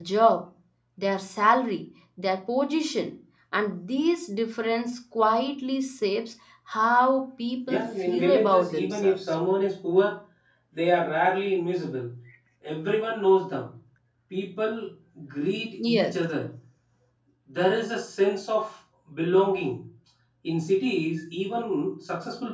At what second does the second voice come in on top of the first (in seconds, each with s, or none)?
7.7 s